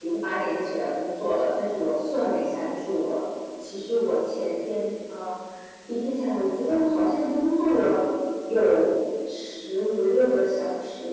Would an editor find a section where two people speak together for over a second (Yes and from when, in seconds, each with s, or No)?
No